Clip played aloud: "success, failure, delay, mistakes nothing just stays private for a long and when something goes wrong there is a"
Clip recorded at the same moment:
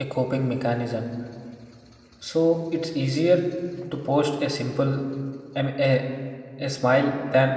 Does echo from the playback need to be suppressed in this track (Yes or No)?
No